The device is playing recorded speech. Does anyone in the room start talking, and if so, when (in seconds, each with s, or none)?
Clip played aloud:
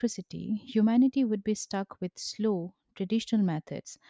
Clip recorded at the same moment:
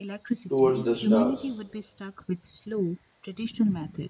0.5 s